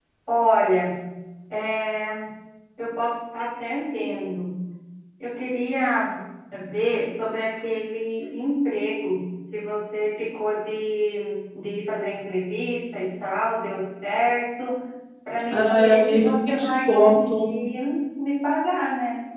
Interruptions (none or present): present